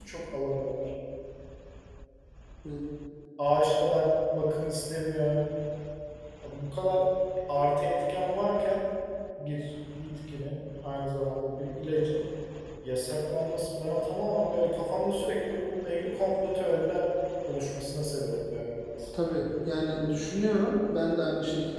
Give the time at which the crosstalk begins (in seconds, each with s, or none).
none